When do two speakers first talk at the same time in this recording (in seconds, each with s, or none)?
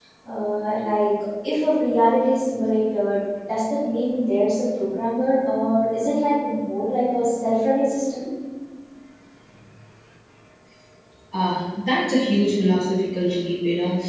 none